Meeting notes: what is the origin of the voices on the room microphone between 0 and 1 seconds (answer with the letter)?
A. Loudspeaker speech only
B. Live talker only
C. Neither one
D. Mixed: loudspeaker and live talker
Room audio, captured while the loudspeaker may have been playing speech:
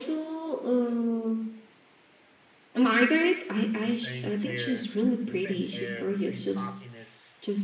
A